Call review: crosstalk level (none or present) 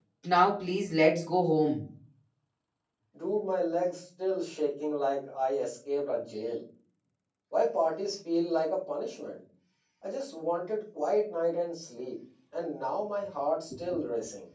none